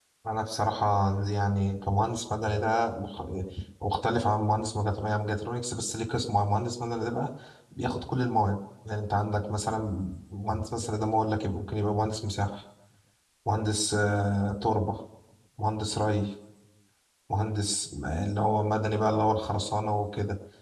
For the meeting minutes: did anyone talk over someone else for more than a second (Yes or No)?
No